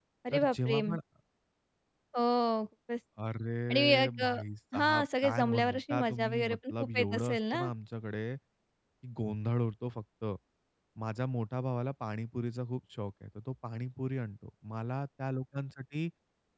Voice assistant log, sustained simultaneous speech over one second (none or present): present